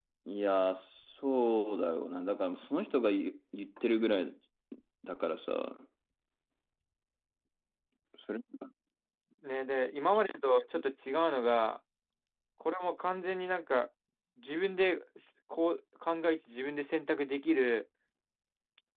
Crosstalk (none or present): none